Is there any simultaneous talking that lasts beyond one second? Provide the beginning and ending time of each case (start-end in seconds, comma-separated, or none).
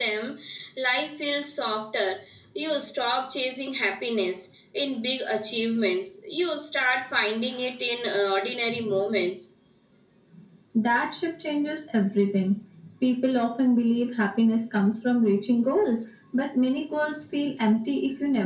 none